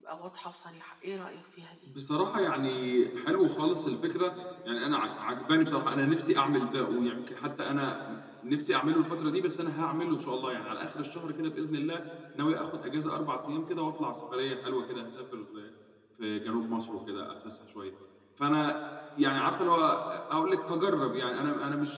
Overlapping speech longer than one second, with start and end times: none

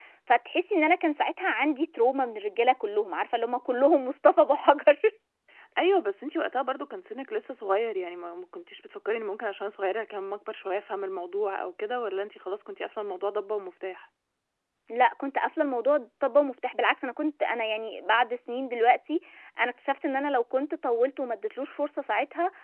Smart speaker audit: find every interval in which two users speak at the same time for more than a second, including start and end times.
none

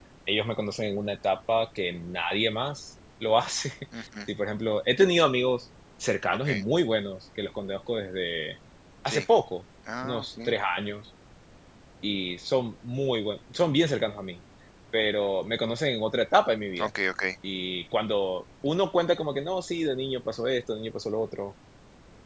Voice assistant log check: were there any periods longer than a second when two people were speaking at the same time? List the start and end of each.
none

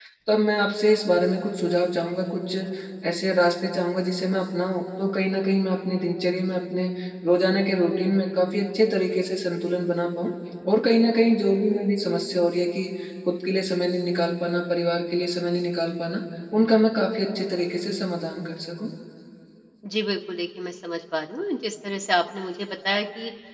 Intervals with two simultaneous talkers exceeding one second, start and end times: none

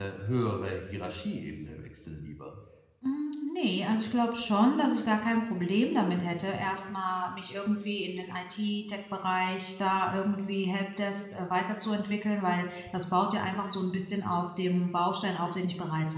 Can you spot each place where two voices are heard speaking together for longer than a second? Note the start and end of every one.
none

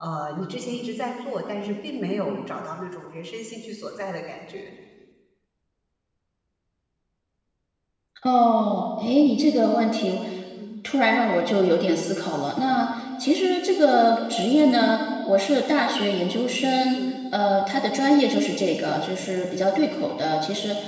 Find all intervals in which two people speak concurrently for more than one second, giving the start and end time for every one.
none

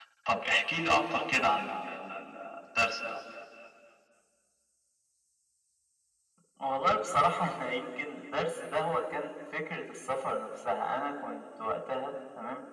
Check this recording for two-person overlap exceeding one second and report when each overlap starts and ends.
none

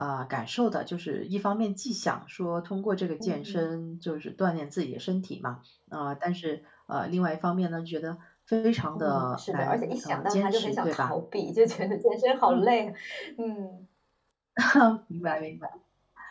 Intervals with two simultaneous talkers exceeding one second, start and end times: 8.9-11.1

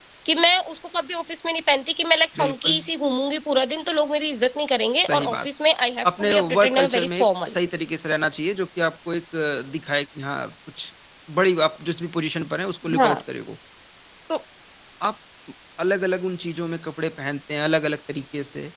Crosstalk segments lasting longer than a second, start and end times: 6.1-7.5

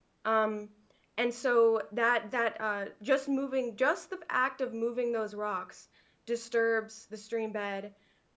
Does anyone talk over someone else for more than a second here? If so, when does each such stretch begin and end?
none

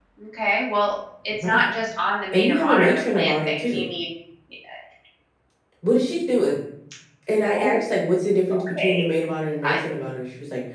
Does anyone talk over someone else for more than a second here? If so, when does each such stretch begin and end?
2.3-3.8

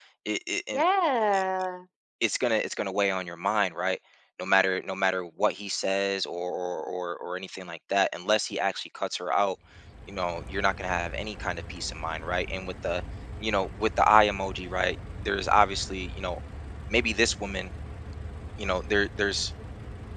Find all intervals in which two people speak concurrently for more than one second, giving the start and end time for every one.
none

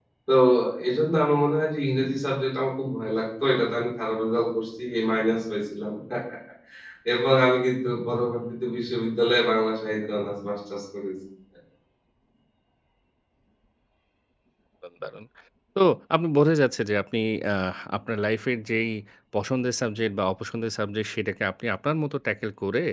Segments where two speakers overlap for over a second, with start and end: none

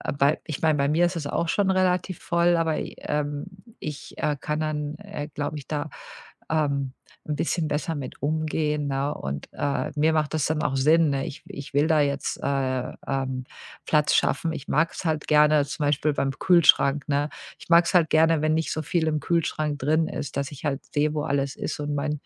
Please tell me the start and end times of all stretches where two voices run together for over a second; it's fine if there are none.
none

